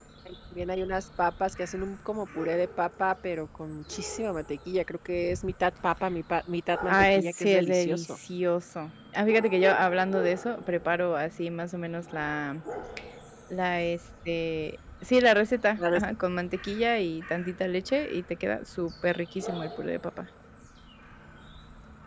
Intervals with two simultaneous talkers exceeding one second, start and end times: 6.9-8.1

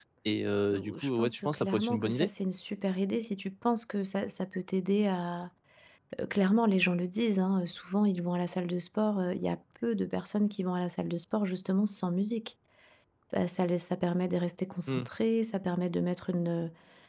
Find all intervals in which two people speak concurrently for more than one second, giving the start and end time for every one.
0.7-2.3

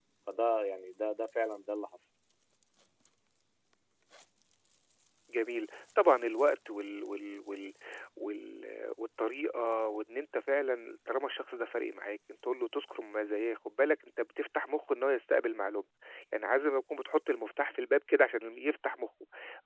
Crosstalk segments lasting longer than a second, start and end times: none

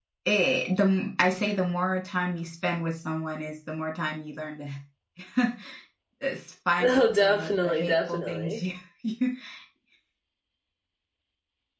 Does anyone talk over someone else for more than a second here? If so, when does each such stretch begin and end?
6.8-8.6

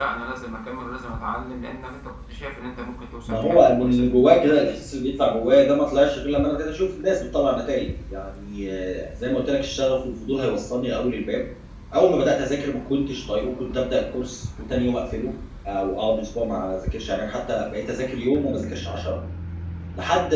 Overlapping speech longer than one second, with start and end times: 3.3-4.7

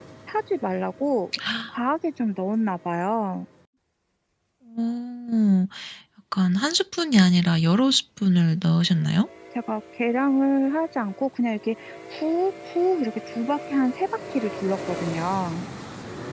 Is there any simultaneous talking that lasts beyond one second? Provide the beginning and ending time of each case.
none

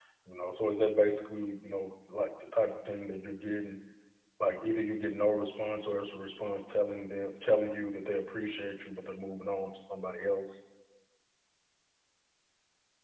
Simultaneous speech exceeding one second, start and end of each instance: none

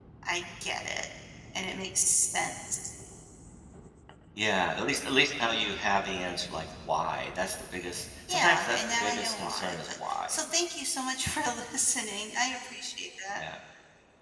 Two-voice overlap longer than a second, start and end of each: 8.3-10.4

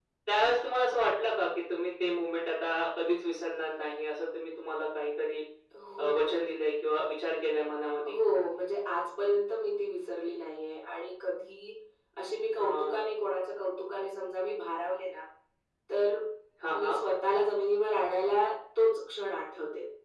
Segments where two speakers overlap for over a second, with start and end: none

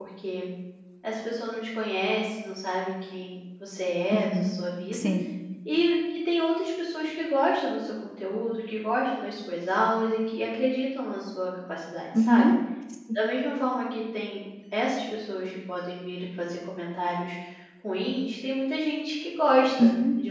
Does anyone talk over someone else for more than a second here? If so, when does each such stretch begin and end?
none

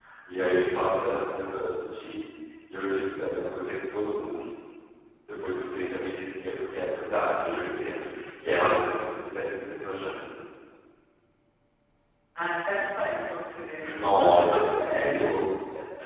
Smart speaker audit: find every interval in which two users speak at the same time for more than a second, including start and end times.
none

